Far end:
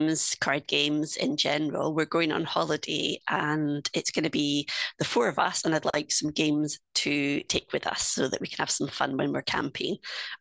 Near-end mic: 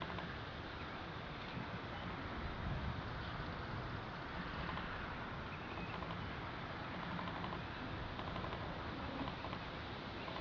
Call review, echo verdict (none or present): none